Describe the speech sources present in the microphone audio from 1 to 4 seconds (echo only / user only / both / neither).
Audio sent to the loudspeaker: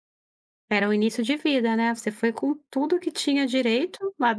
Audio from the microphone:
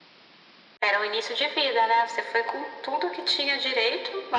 echo only